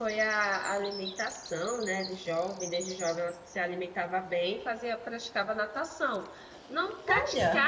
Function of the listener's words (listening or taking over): listening